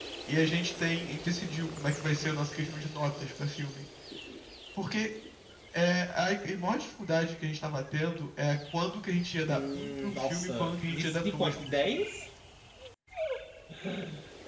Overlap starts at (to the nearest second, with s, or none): 9 s